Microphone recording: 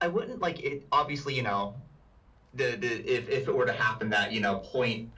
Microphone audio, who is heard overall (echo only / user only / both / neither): echo only